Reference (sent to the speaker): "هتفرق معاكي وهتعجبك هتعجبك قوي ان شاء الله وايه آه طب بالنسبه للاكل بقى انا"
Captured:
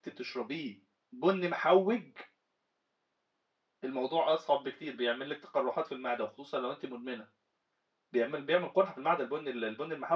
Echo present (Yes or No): No